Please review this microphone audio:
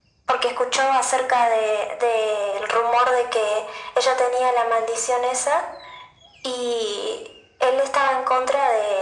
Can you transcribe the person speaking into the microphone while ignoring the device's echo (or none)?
none